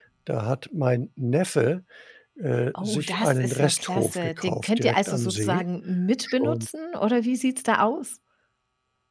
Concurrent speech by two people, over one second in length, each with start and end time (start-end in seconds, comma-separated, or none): 2.8-5.6